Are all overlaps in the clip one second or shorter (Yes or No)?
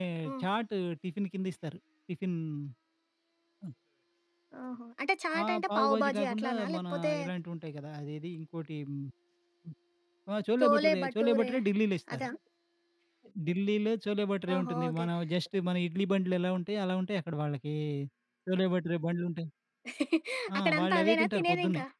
No